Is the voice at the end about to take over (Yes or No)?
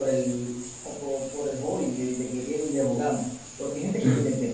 No